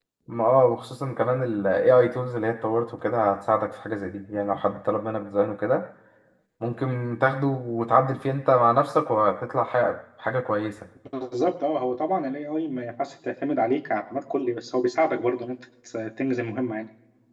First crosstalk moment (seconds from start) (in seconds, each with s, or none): none